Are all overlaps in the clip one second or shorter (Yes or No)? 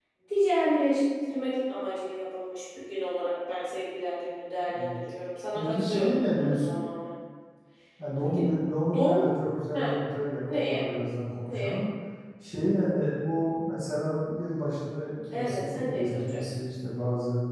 No